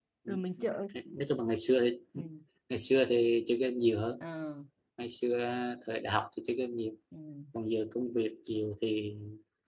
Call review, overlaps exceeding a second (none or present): none